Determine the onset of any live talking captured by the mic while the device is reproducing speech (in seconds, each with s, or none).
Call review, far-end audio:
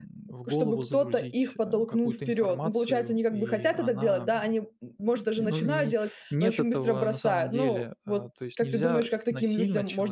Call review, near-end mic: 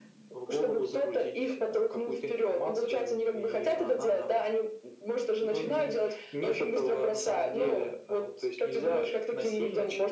none